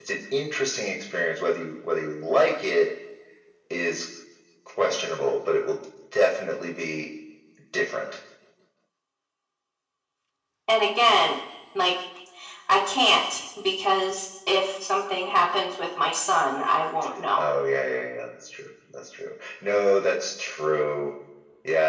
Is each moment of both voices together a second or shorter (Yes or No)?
Yes